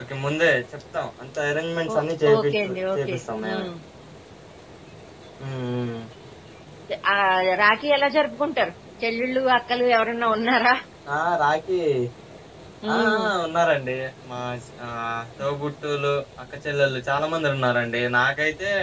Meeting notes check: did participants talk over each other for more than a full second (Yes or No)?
Yes